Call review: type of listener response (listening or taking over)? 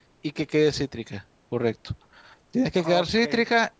listening